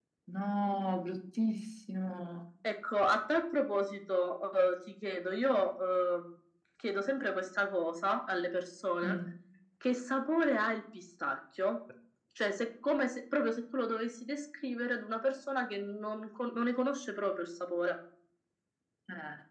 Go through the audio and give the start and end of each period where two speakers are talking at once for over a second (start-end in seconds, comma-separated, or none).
none